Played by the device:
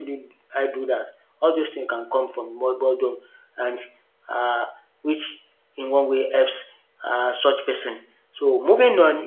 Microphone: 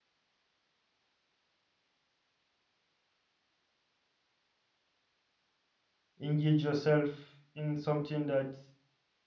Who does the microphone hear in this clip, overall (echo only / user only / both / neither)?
user only